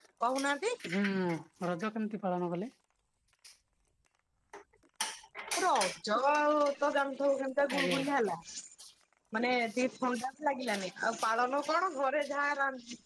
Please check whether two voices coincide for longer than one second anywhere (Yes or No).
No